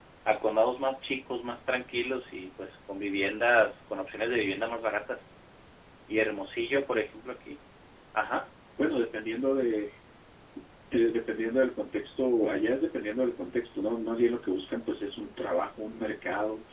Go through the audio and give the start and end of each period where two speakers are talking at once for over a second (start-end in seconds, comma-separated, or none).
none